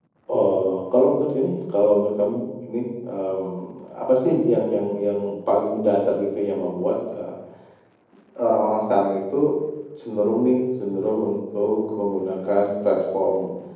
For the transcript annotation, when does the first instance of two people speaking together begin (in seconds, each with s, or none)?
none